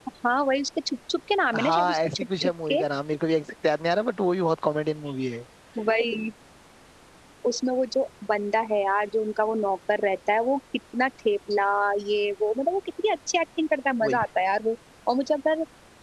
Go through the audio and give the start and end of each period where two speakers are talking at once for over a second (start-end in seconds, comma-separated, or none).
1.6-2.8